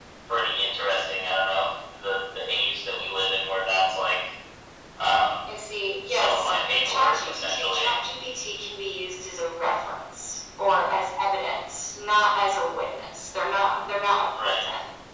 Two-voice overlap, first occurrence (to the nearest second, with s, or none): 6 s